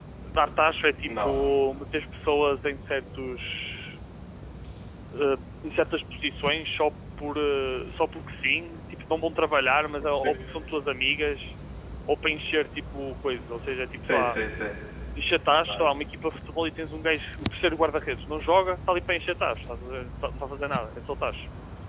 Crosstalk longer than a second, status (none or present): none